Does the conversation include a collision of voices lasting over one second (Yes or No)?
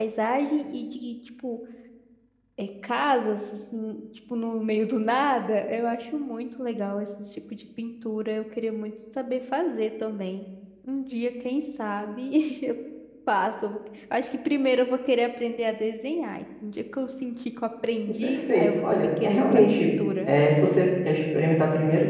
Yes